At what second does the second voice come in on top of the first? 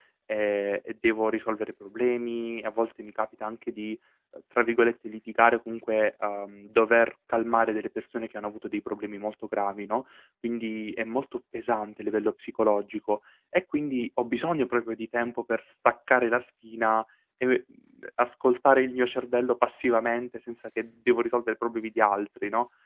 none

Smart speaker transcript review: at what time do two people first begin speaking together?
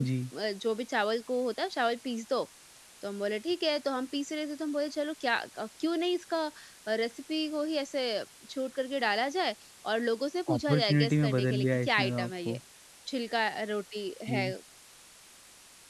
10 s

